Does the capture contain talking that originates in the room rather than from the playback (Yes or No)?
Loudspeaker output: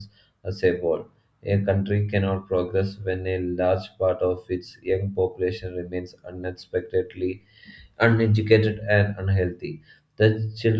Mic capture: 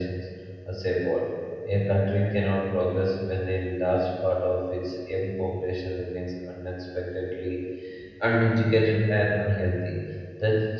No